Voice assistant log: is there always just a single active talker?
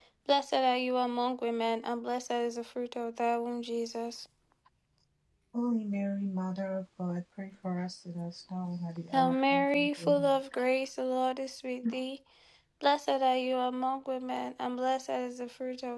No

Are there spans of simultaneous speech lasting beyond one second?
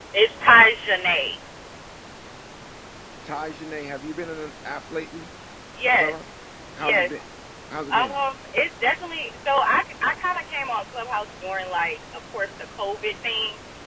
No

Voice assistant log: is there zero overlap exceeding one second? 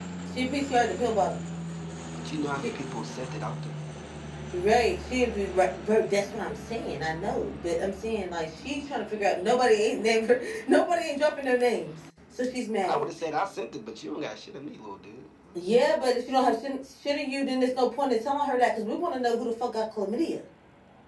Yes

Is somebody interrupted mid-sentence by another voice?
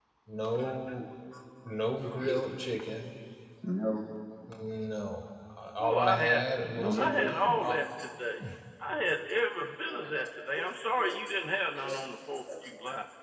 Yes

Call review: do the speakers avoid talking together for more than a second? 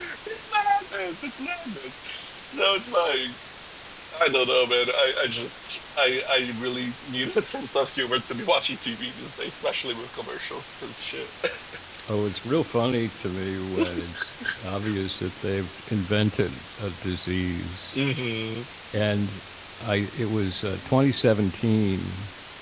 Yes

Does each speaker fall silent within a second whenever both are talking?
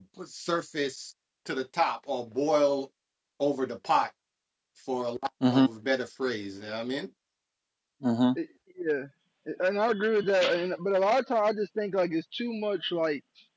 Yes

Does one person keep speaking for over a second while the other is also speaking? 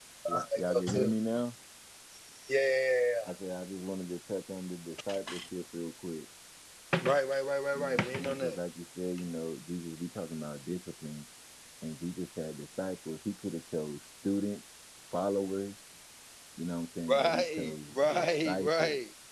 Yes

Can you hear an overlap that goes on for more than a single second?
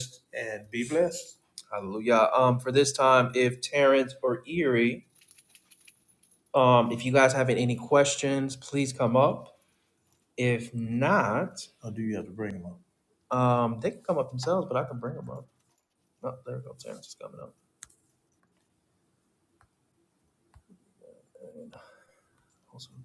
No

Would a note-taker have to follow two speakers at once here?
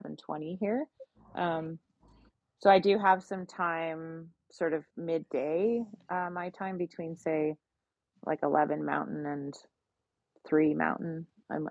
No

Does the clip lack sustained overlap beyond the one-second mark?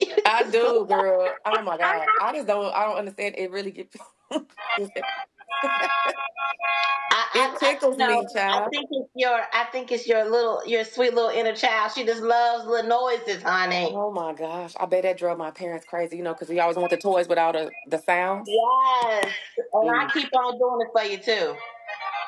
No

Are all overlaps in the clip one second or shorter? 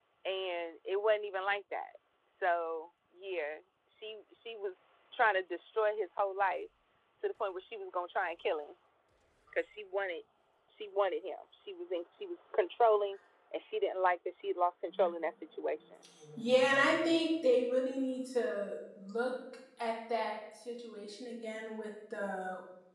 Yes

